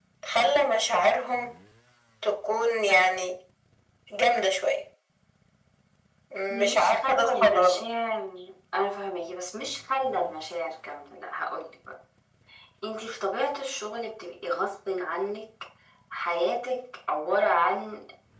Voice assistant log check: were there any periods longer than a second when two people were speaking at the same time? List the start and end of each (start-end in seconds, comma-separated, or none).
6.5-7.8